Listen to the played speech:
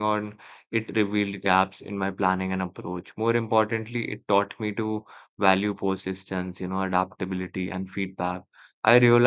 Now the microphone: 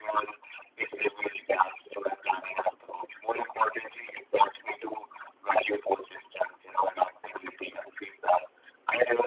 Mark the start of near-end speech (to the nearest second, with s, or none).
none